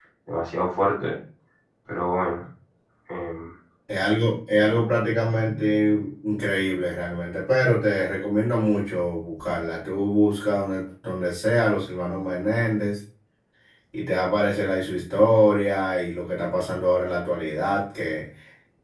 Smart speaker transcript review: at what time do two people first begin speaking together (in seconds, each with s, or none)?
none